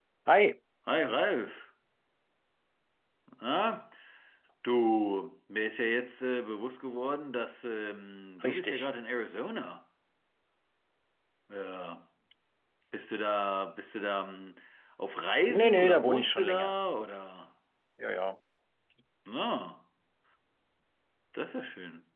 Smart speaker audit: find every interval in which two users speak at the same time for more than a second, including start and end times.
15.5-16.7

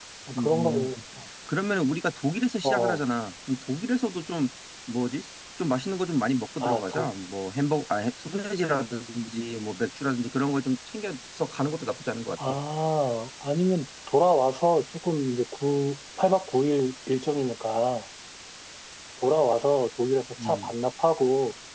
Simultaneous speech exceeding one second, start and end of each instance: none

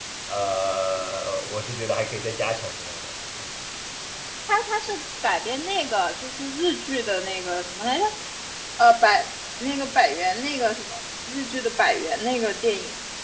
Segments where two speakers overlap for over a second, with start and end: none

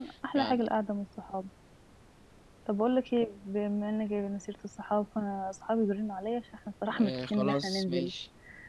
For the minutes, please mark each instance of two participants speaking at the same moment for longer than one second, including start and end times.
6.8-8.1

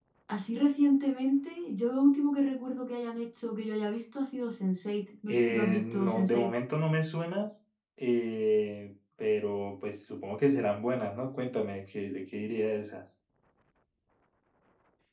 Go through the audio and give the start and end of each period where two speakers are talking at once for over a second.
5.3-6.5

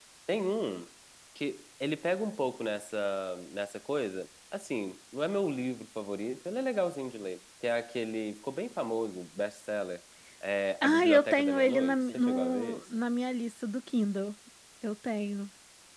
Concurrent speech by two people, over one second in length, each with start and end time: 10.8-12.8

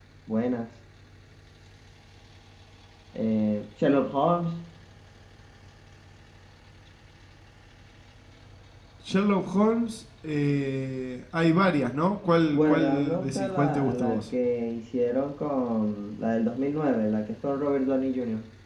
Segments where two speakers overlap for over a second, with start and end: 12.5-14.2

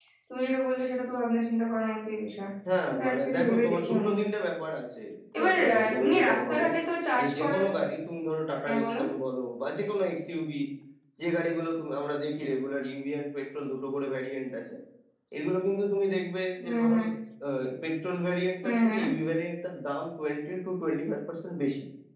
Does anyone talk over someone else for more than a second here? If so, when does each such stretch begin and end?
2.9-4.1, 5.4-6.6

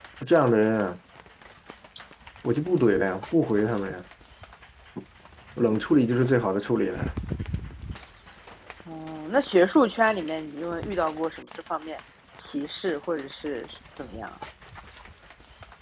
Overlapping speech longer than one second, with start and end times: none

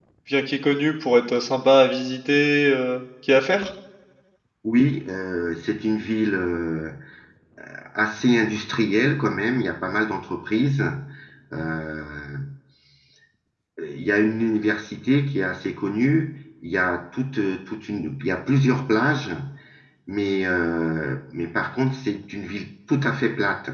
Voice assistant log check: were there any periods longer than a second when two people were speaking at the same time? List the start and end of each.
none

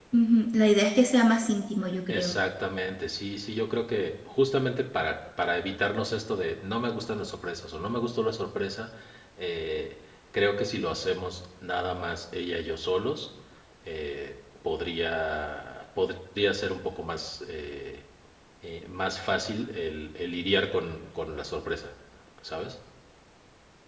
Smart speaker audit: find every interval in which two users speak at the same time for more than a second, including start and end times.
none

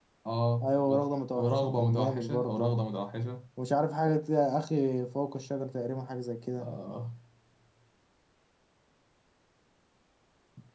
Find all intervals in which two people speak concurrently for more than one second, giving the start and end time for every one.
1.4-2.7

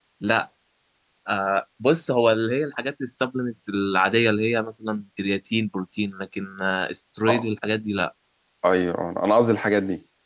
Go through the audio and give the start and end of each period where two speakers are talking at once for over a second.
none

